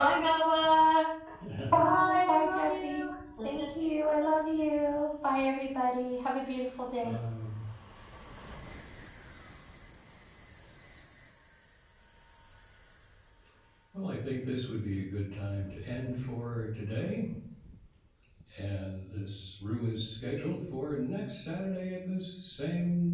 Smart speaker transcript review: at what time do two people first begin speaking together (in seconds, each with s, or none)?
1.8 s